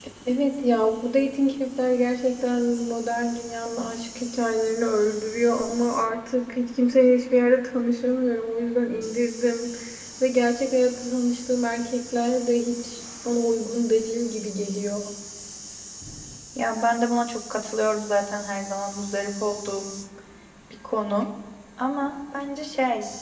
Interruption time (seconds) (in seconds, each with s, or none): none